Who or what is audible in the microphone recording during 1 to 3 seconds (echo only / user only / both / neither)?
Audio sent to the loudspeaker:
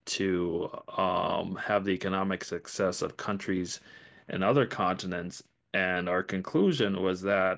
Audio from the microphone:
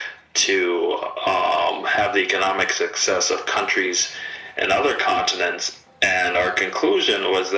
echo only